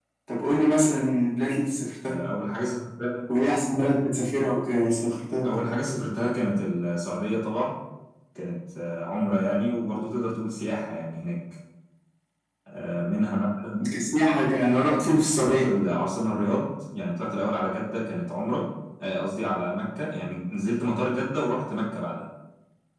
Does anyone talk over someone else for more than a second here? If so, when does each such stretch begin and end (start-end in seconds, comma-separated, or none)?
none